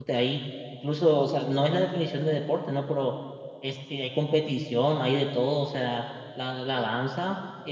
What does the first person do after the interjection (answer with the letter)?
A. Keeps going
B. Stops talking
A